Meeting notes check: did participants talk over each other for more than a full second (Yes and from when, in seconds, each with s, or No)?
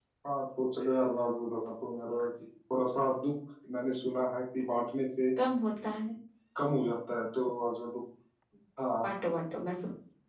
No